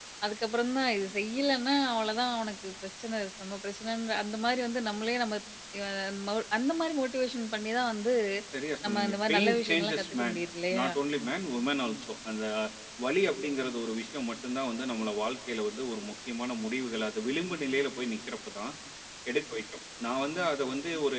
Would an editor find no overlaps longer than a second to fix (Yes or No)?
No